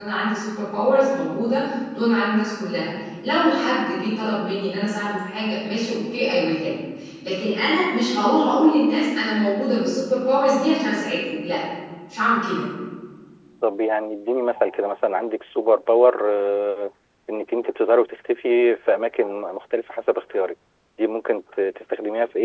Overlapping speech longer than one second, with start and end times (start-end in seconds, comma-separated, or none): none